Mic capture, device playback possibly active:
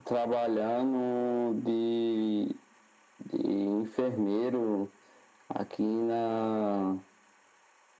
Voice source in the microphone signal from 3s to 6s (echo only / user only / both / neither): echo only